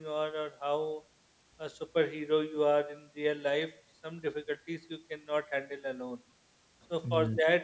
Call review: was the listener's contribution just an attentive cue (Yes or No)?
Yes